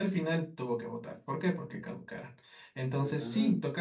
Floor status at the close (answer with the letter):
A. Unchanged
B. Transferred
A